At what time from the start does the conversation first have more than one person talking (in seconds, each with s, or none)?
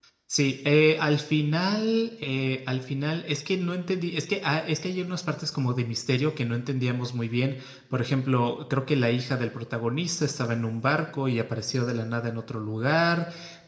none